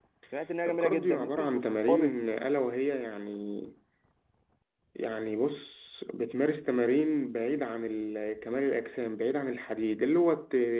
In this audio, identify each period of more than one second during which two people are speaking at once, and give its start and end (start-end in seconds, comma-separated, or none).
0.7-2.1